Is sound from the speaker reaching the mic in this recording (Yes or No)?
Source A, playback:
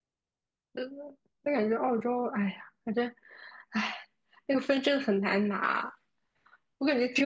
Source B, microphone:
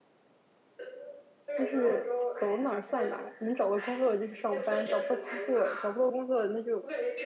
Yes